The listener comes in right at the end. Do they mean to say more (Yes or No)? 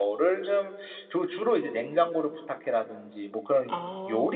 No